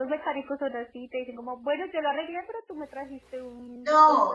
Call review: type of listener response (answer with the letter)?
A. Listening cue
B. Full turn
B